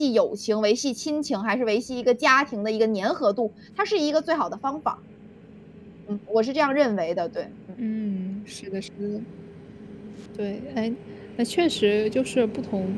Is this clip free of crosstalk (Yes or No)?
Yes